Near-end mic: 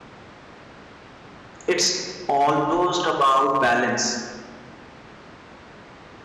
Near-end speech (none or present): present